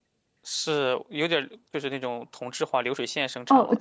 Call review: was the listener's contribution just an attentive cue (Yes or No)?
No